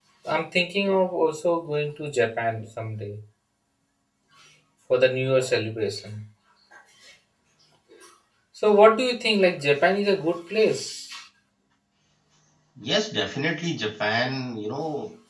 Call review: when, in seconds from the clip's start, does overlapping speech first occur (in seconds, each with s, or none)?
none